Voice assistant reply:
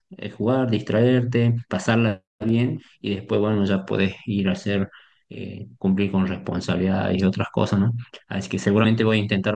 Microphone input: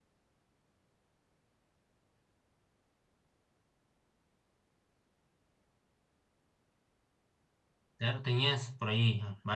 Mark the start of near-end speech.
8.0 s

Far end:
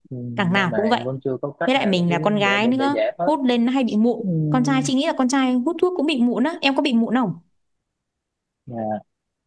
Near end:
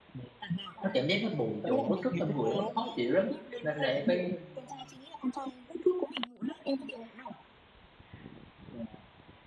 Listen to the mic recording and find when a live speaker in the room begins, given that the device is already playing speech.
0.8 s

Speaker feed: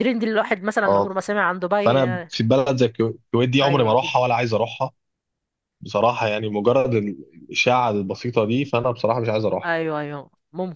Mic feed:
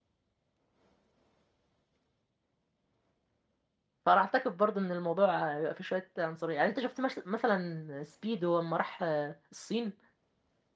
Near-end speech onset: 4.0 s

